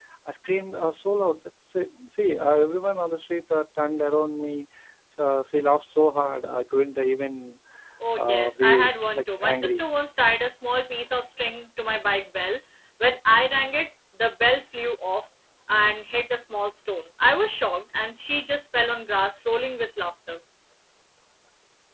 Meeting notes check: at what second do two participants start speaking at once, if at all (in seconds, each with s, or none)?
8.1 s